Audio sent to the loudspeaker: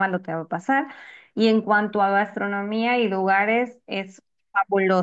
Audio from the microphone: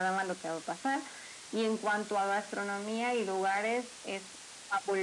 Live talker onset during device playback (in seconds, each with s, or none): none